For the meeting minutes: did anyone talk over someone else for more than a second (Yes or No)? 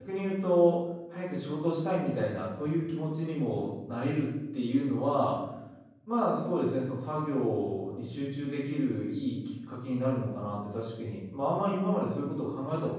No